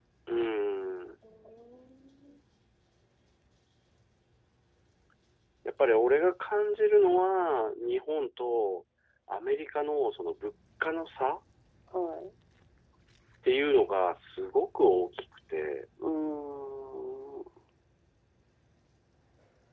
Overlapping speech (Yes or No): No